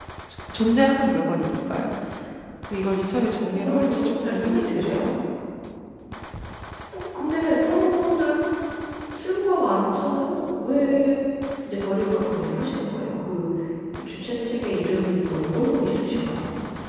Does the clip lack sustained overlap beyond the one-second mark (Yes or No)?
No